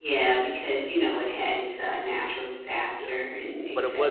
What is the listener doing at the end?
taking over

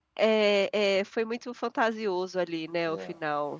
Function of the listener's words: taking over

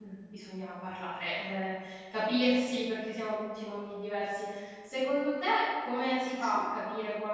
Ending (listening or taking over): listening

